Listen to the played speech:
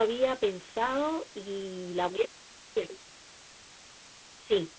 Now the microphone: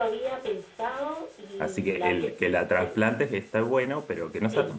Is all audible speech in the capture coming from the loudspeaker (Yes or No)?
No